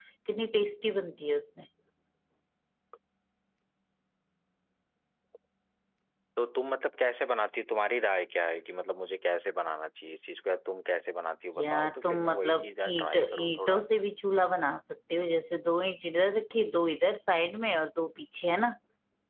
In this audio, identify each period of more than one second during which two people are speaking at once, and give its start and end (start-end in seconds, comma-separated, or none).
11.6-13.8